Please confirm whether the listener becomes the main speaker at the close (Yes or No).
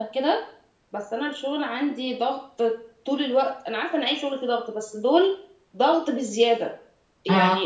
No